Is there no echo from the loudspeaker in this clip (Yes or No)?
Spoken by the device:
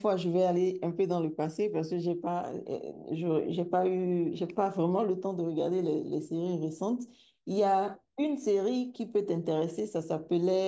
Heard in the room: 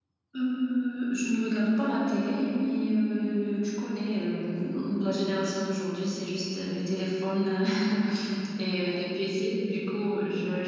Yes